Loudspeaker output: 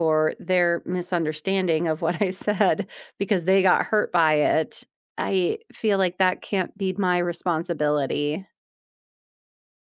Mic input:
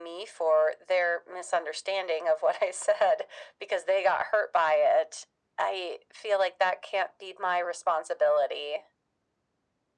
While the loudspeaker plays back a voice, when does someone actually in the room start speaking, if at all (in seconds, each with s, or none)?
none